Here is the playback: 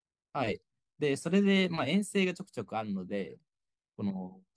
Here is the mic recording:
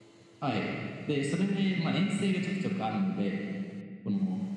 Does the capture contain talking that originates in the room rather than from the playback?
No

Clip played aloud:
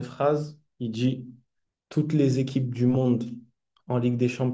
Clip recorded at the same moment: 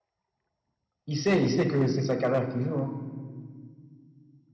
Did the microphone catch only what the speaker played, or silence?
No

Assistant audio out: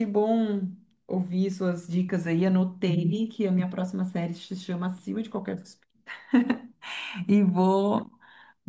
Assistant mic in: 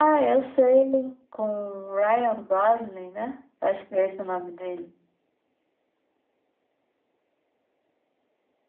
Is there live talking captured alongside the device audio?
Yes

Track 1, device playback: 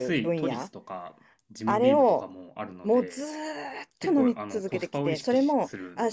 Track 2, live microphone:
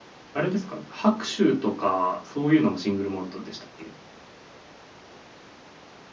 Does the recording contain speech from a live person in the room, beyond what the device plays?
Yes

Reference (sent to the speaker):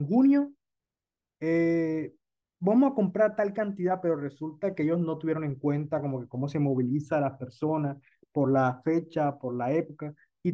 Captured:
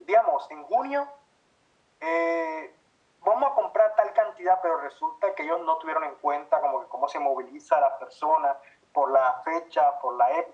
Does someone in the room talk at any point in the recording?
No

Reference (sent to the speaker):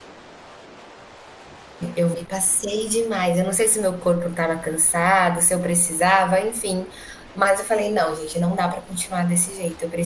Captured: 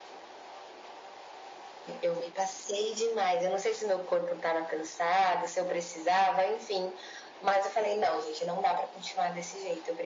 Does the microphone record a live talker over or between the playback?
No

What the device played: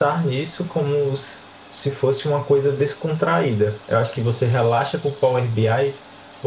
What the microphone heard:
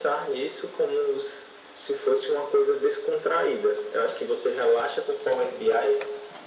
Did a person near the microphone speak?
No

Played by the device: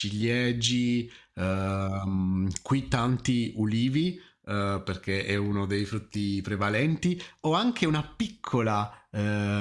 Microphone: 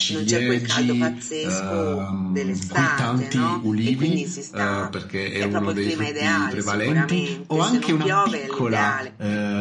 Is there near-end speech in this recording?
Yes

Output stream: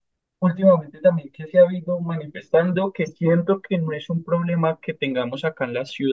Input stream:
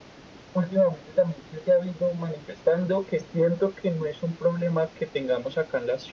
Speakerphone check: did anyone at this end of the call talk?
No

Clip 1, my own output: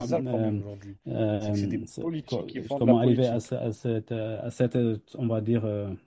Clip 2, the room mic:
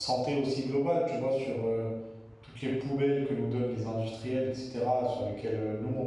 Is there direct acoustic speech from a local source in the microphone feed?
Yes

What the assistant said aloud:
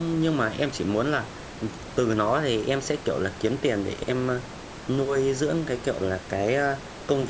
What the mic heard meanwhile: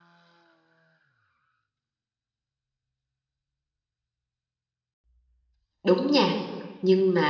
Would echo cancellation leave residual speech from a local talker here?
Yes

